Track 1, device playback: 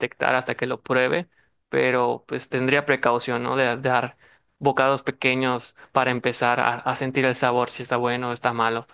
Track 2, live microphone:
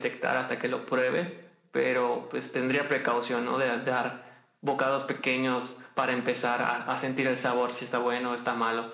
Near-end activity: none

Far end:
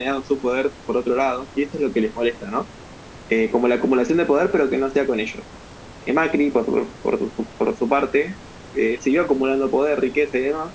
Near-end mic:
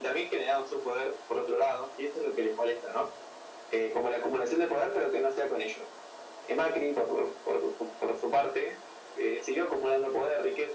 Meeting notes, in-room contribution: none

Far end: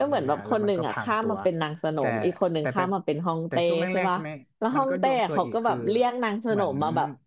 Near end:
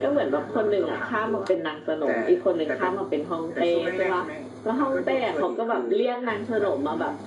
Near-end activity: none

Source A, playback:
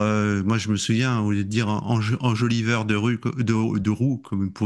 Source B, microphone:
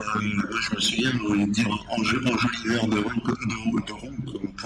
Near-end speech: none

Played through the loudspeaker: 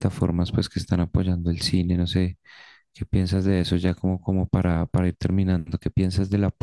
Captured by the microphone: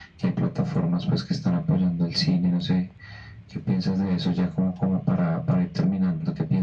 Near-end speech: none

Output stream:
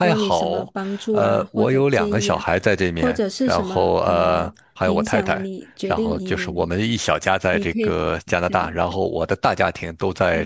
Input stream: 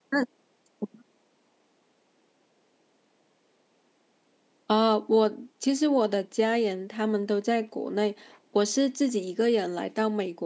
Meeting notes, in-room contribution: present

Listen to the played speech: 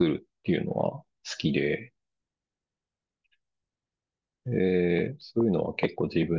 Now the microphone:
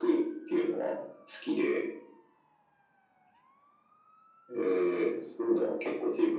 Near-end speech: none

